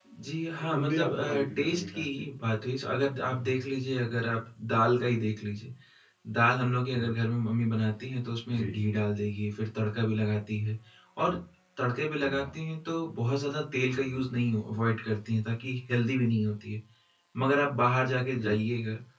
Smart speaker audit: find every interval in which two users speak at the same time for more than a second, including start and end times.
0.8-2.0

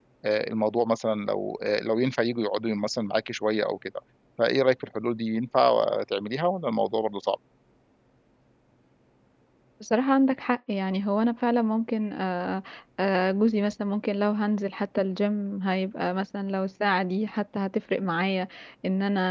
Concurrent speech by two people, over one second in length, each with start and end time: none

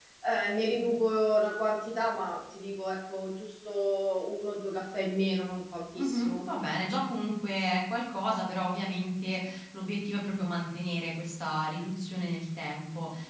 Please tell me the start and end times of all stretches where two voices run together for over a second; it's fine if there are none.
none

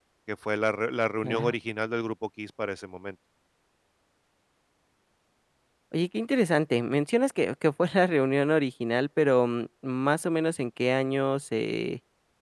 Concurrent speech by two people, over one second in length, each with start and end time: none

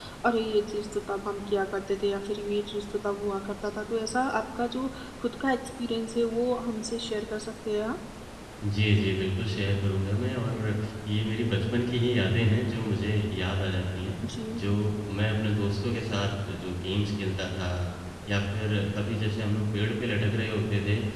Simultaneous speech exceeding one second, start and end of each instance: none

